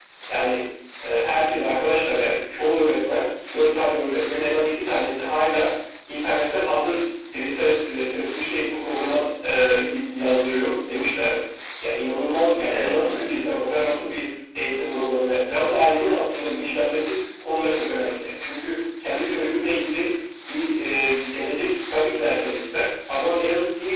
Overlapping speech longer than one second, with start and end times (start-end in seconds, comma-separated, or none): 12.7-14.1